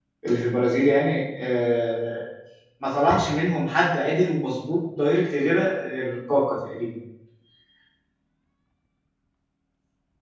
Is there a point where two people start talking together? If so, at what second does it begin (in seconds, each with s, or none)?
none